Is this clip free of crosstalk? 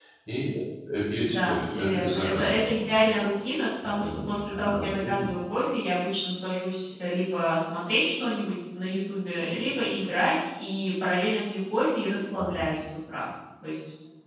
No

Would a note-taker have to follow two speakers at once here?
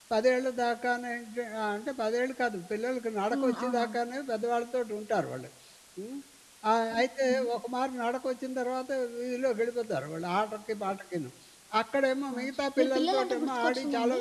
Yes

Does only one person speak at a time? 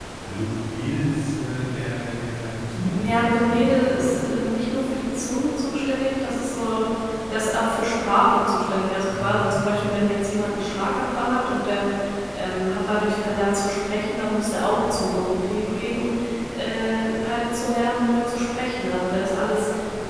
No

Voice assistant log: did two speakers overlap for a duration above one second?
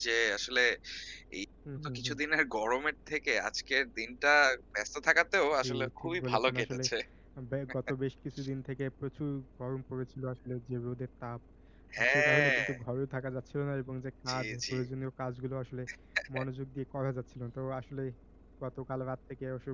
Yes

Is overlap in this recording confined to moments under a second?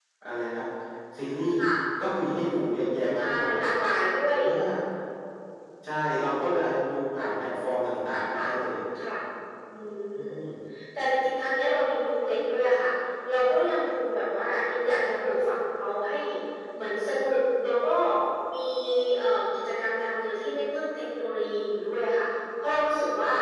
Yes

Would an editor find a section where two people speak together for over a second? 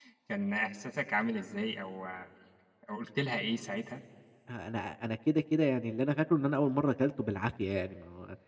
No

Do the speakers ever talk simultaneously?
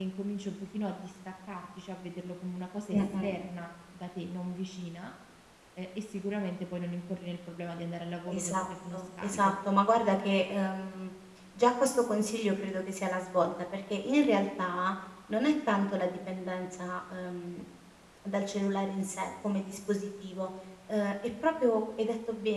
Yes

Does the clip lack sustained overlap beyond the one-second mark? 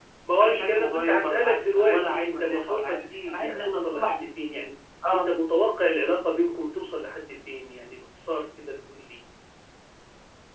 No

